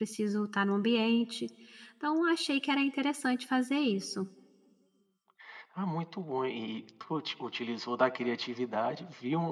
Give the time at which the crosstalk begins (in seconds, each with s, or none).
none